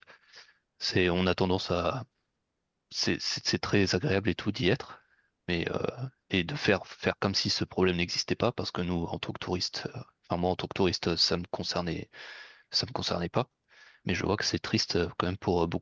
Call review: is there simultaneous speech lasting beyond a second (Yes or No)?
No